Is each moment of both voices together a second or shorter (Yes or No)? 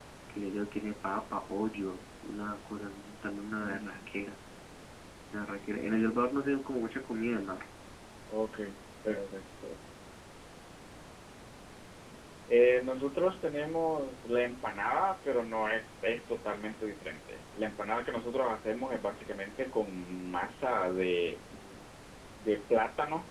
Yes